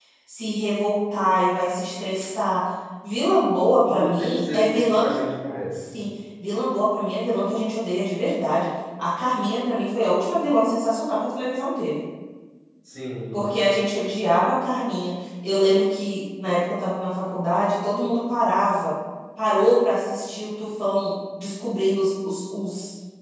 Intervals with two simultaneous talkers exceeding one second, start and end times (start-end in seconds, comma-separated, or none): 3.8-5.2